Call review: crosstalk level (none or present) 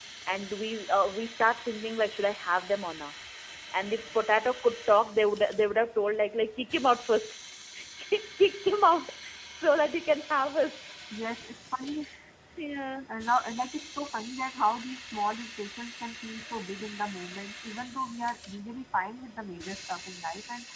none